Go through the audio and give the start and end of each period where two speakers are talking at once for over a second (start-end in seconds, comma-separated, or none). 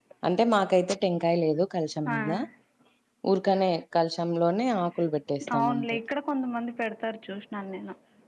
none